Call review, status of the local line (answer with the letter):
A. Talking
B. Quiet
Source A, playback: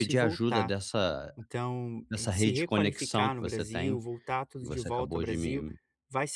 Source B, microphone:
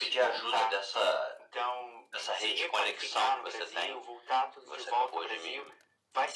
B